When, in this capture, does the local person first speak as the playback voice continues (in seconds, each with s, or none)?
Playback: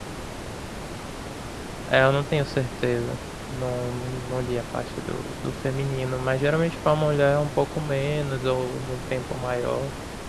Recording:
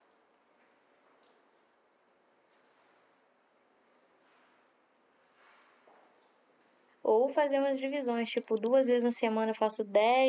7.0 s